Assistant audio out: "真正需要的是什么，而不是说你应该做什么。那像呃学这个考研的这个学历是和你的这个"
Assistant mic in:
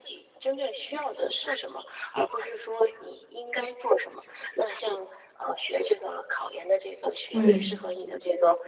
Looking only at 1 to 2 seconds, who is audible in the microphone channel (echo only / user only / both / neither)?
echo only